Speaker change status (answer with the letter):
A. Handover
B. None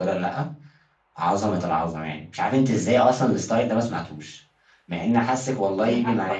A